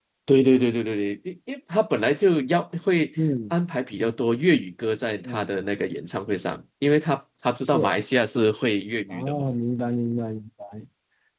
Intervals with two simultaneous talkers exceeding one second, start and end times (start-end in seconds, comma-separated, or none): none